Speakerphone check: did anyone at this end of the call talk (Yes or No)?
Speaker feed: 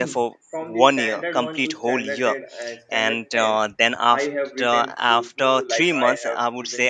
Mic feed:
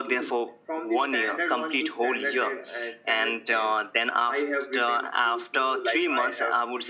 No